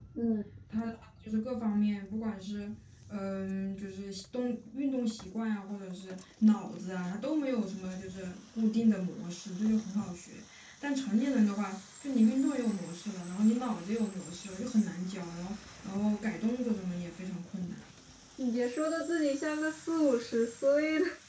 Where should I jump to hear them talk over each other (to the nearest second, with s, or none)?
none